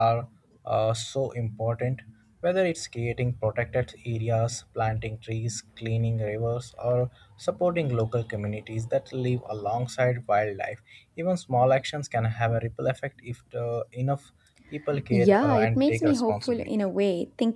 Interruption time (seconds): 15.2 s

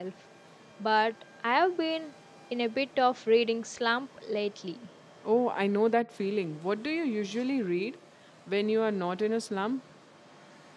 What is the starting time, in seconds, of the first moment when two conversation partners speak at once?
none

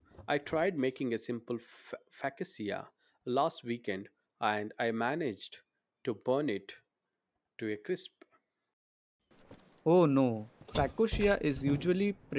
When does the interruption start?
none

